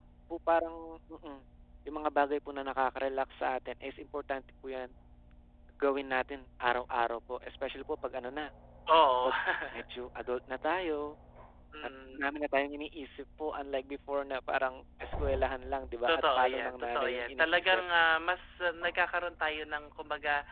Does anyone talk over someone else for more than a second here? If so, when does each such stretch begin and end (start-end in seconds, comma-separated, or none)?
16.1-17.8